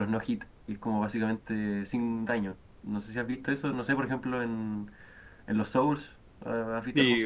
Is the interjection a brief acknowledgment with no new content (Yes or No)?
No